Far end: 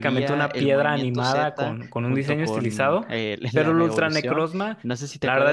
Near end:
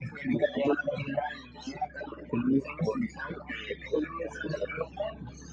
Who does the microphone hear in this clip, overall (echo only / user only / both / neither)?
echo only